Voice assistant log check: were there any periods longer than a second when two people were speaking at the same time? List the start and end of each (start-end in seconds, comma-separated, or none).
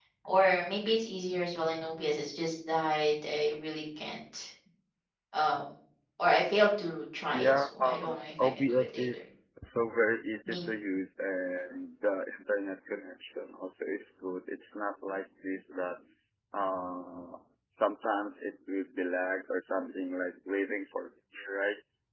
7.3-9.2